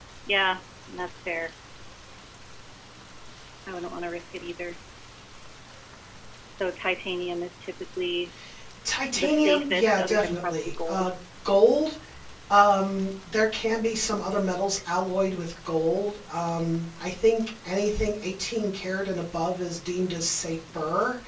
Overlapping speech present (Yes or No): Yes